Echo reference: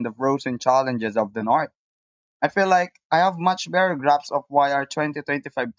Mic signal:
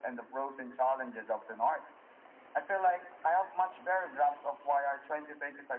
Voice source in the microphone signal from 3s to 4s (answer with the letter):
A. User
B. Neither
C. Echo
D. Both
C